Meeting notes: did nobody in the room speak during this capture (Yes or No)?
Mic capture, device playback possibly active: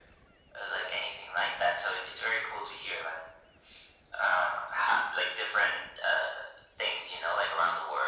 Yes